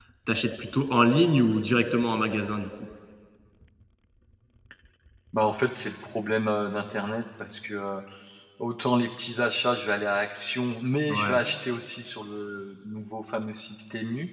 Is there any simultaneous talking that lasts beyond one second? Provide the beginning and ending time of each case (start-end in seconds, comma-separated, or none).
none